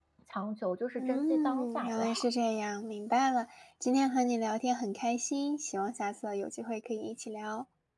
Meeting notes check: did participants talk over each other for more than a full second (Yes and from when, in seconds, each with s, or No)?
Yes, from 1.0 s